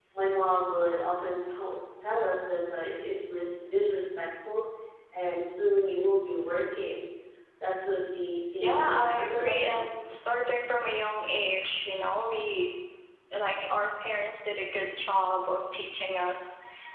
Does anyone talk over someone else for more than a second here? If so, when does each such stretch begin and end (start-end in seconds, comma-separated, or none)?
8.6-9.9